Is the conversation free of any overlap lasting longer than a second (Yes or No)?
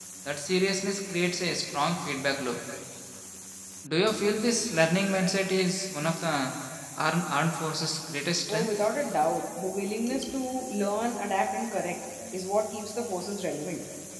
Yes